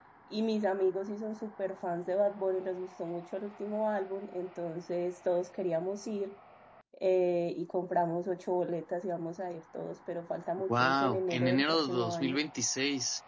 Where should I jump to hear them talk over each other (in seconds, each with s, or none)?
10.7 s